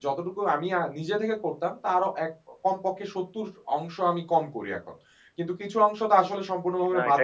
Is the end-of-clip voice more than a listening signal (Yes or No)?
Yes